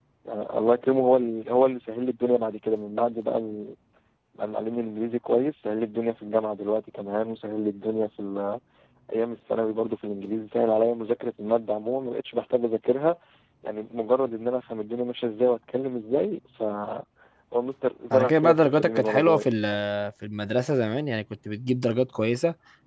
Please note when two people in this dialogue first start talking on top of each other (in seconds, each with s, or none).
18.1 s